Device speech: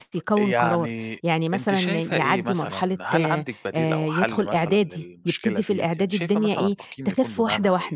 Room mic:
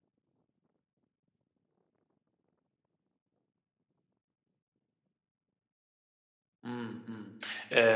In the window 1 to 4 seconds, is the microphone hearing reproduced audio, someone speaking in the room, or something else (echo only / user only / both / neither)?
neither